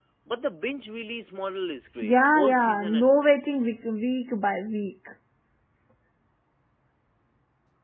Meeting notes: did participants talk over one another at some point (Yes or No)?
Yes